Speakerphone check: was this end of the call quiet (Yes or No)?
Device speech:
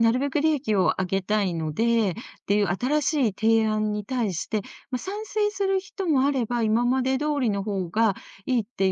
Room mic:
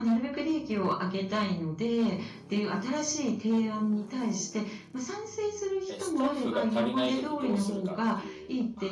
No